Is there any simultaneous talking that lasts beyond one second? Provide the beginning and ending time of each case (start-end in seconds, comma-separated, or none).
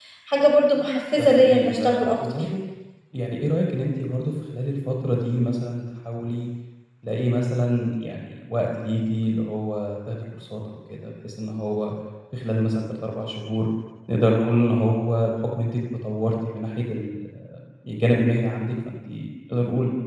1.1-2.5